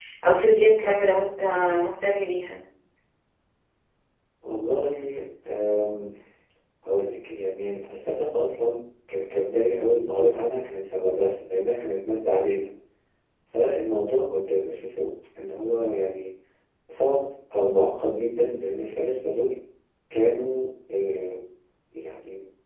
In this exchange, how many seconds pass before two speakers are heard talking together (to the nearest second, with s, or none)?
none